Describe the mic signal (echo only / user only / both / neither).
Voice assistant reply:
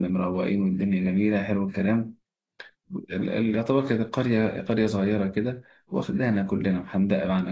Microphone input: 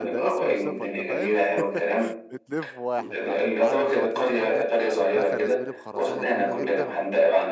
both